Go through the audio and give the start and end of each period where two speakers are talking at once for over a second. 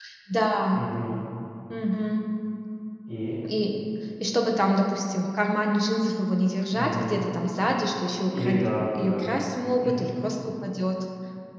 none

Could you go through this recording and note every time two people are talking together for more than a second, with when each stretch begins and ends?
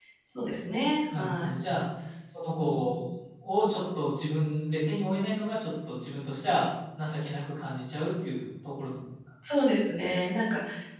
none

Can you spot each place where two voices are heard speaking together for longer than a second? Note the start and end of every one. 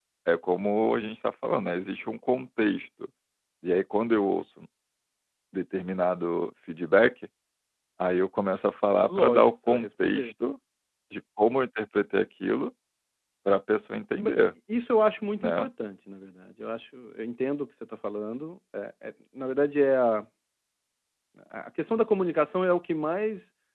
9.1-10.3

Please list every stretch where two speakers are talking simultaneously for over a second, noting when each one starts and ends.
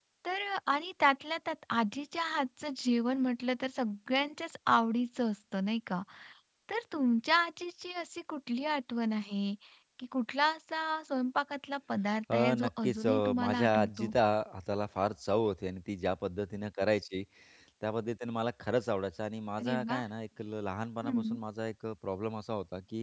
12.3-14.1

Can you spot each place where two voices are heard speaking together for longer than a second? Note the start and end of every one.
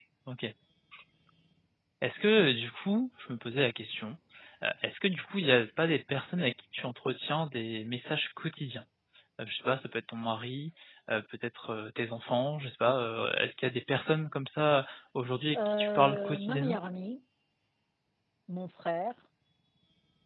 15.5-16.8

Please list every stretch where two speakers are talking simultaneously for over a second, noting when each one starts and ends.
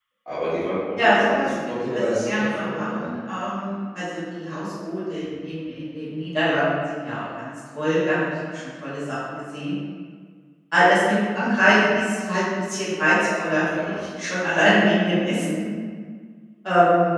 1.0-3.1

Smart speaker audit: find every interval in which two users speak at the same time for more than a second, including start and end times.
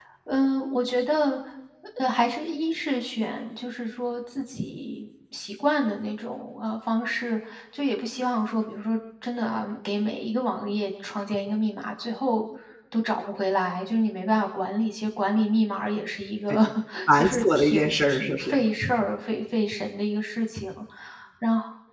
17.1-18.6

